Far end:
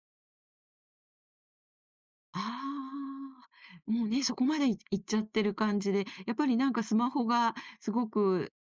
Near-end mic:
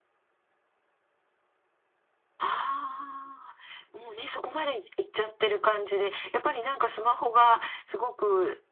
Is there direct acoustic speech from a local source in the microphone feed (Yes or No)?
No